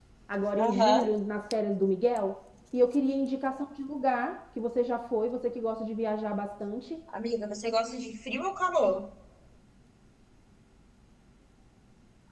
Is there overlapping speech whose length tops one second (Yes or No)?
No